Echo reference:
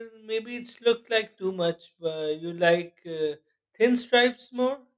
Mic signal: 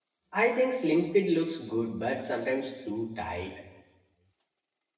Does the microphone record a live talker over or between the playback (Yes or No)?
Yes